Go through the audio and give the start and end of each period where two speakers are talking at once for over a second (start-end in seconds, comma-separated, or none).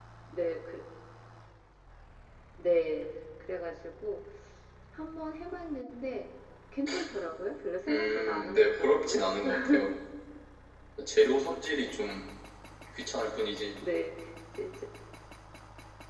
7.9-9.2